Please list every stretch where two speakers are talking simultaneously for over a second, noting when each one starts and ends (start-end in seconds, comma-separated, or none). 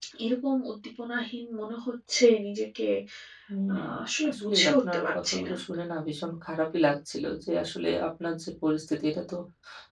4.3-5.5